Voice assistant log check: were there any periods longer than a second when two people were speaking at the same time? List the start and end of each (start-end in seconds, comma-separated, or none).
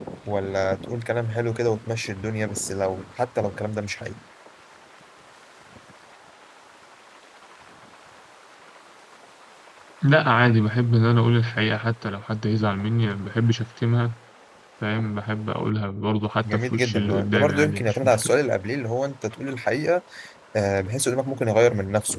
16.4-18.3